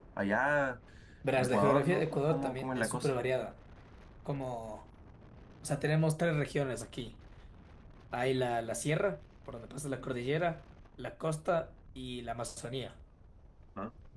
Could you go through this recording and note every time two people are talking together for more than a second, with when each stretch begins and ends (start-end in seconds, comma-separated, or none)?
1.4-3.1